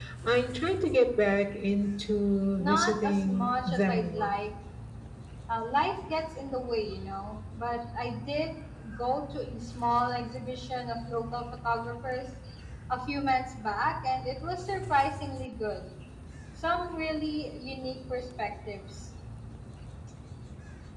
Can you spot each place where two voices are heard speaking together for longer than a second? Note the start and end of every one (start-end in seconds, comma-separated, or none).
2.6-4.3